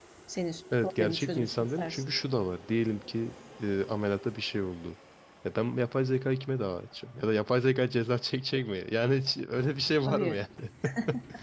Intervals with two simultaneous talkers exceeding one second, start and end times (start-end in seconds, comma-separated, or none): 0.8-2.0